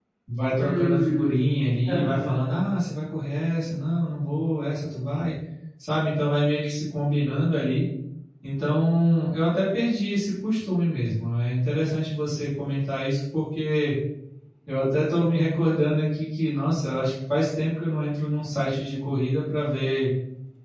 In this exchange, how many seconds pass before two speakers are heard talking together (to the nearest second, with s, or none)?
1 s